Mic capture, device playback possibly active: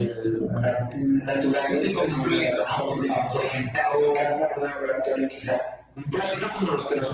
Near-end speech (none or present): none